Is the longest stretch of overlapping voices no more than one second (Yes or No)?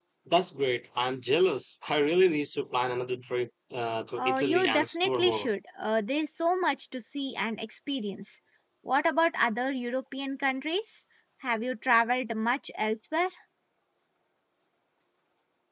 No